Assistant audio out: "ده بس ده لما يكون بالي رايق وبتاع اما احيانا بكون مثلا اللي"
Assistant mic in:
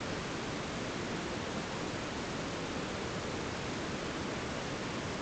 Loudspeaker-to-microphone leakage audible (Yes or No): No